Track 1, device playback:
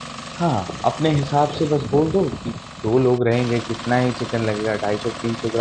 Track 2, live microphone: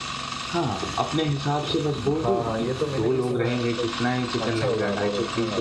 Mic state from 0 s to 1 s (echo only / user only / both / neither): echo only